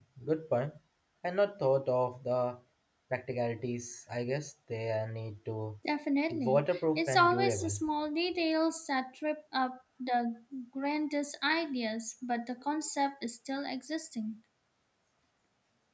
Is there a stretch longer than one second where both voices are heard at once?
Yes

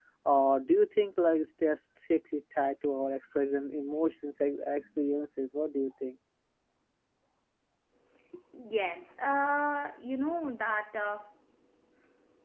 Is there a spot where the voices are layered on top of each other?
No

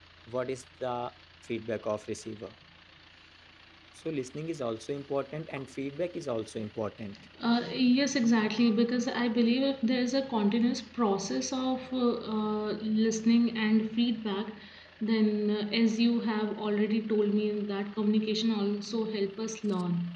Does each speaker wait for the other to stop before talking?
Yes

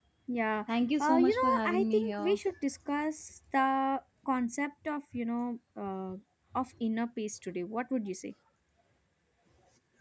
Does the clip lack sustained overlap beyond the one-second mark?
No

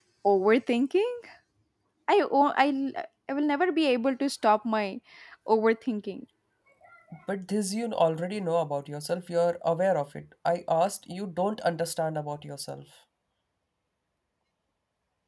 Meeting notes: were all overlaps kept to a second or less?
Yes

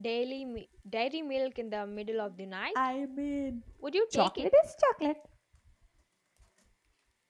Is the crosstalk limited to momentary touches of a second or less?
Yes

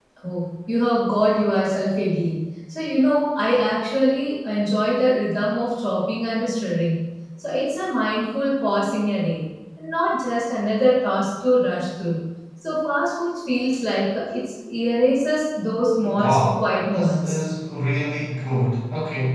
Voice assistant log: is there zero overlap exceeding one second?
No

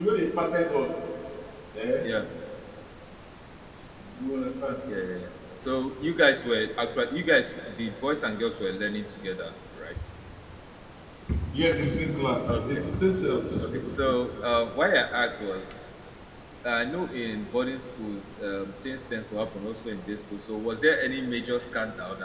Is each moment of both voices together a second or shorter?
Yes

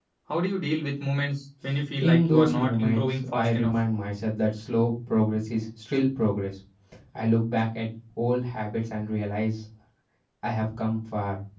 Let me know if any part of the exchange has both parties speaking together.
Yes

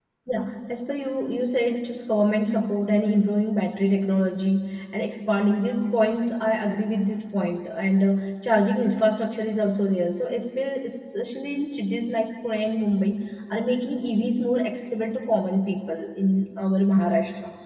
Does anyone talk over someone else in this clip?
No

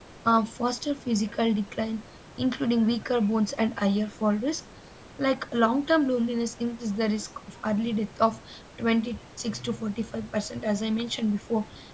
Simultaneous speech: No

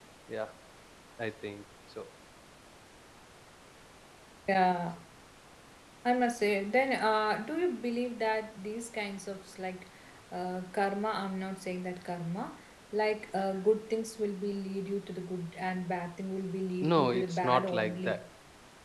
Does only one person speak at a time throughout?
No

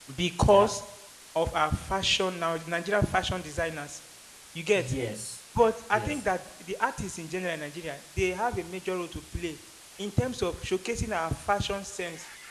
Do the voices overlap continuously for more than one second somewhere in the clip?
No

